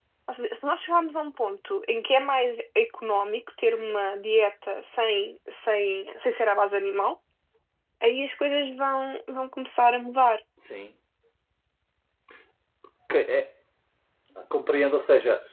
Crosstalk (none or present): none